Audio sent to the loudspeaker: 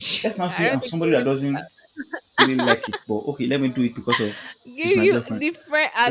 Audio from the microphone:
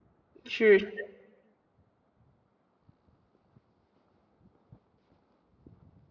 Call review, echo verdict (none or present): none